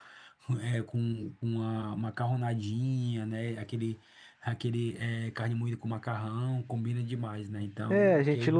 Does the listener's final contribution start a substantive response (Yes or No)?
Yes